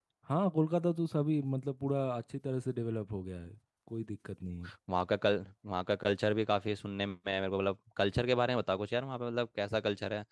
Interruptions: none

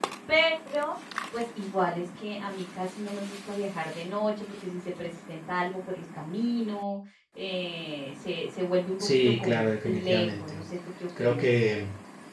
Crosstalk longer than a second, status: present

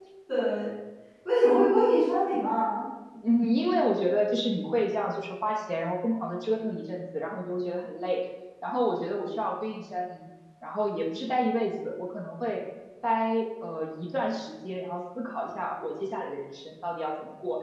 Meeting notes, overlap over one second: none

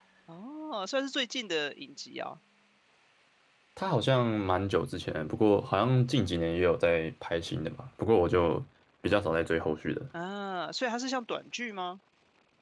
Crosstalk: none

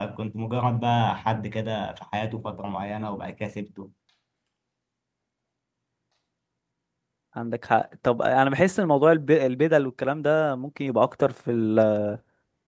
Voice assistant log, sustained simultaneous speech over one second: none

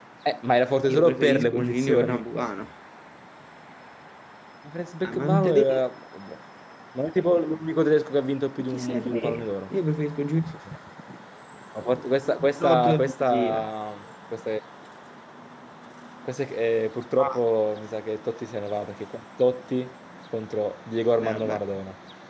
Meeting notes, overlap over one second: present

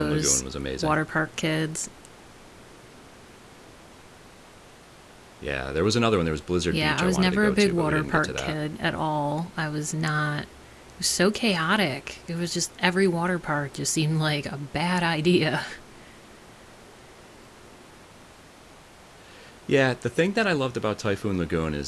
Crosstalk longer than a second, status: present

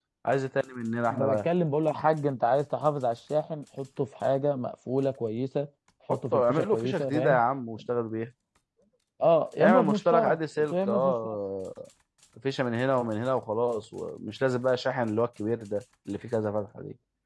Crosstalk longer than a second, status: present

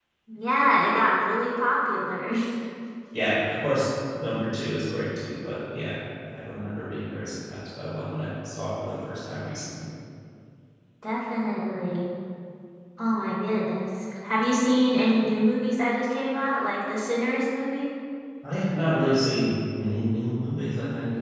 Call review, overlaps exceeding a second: none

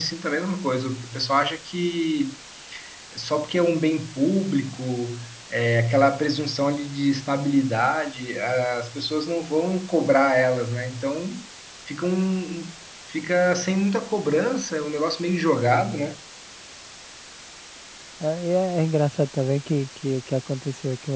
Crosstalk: none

